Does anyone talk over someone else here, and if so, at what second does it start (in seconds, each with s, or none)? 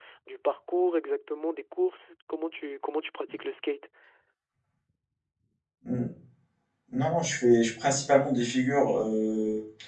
none